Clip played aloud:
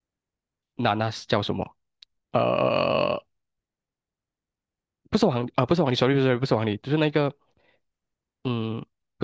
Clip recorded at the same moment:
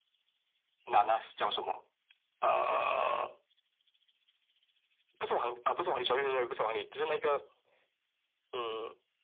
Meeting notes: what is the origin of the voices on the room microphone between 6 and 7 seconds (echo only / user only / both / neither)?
echo only